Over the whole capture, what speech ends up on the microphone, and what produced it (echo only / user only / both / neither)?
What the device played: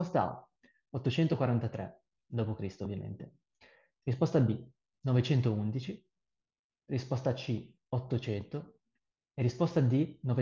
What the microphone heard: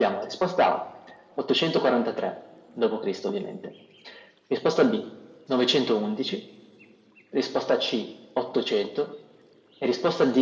echo only